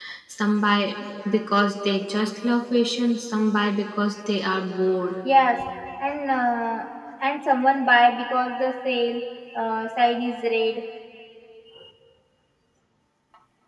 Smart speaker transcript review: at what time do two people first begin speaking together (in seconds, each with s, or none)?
none